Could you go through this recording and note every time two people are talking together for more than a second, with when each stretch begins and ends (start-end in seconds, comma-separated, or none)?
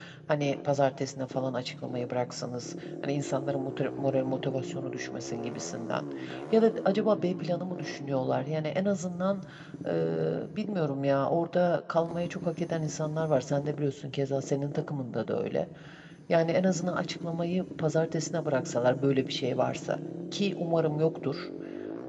none